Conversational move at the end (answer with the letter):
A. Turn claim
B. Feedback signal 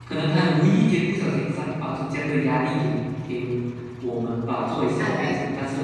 B